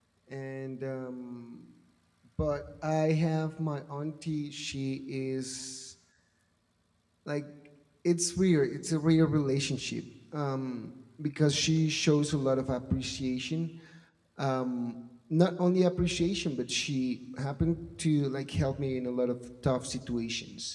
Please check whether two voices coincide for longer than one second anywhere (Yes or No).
No